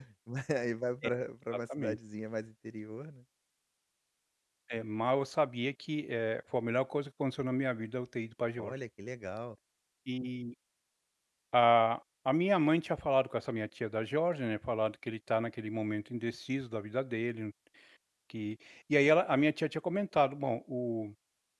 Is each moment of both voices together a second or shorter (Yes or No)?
Yes